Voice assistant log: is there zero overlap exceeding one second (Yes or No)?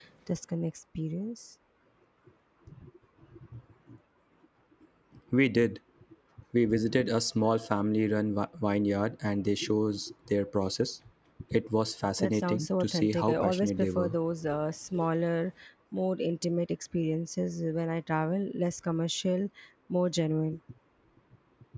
No